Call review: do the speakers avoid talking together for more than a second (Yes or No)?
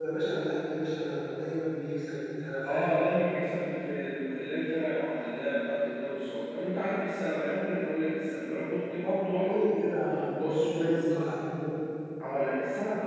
Yes